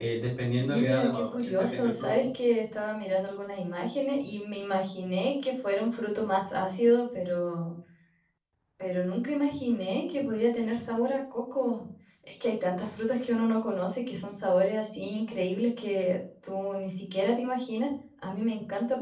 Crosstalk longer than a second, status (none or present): present